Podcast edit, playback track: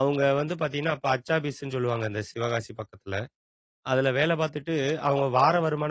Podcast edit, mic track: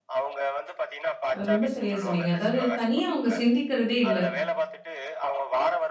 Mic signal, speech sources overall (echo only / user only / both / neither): both